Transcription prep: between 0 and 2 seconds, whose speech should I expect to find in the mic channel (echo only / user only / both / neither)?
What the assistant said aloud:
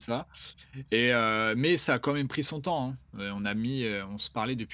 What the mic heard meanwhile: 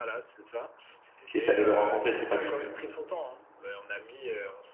both